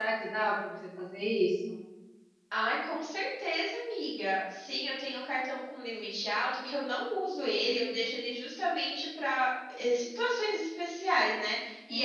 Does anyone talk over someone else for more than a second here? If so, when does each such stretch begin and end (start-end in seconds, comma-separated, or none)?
none